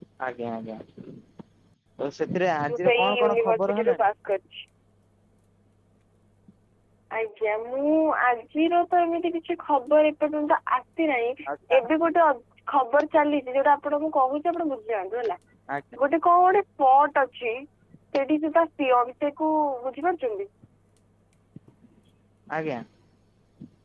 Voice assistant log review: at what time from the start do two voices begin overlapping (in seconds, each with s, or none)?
2.7 s